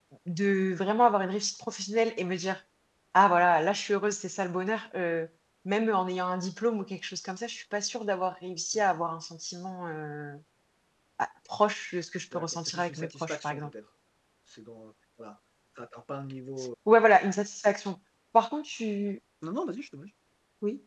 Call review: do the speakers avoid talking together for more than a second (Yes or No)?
No